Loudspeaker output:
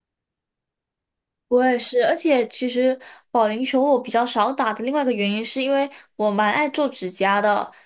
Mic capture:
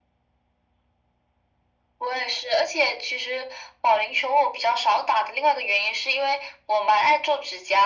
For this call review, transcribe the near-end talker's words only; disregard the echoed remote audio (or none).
none